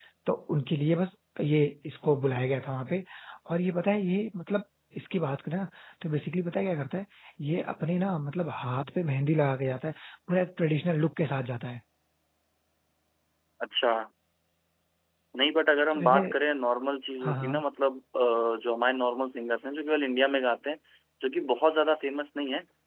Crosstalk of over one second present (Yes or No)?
No